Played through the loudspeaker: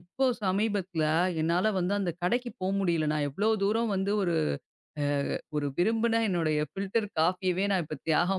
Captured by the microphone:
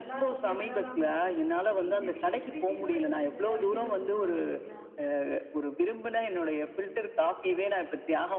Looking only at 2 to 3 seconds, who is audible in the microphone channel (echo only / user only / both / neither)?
both